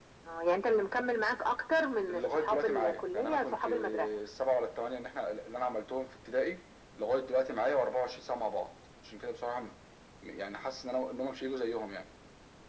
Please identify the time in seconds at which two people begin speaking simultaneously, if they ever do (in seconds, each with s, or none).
2.1 s